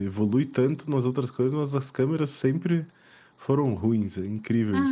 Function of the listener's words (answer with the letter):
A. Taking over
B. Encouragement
A